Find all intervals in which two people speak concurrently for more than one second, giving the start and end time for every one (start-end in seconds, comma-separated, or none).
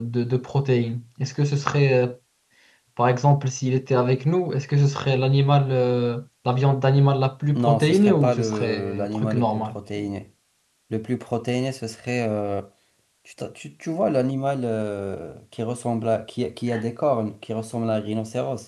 7.6-9.7